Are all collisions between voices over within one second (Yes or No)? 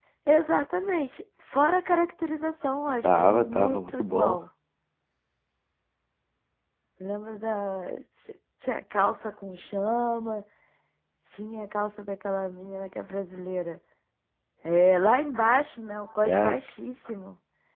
No